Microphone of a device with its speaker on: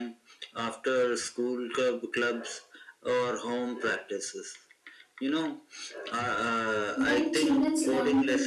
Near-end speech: present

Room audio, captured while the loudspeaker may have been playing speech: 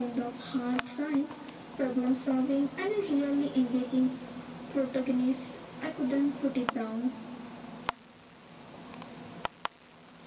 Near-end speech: none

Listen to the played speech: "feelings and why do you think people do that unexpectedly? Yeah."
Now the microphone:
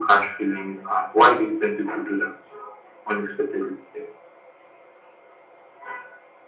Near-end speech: none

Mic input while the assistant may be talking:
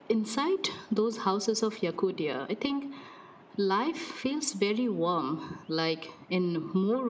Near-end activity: none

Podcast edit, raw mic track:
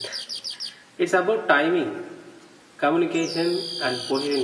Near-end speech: present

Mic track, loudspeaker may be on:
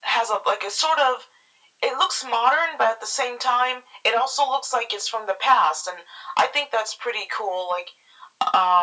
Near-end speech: none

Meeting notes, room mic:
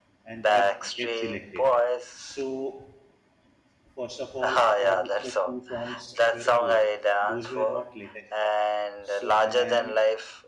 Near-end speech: present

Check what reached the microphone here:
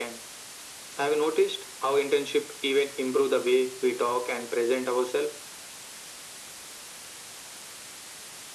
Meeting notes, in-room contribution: none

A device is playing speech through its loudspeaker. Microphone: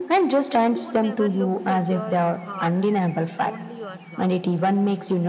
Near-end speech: present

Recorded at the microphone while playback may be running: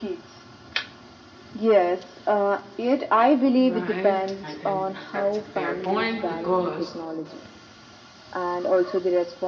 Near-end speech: present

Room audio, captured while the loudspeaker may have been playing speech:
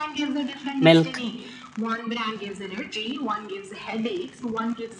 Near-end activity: present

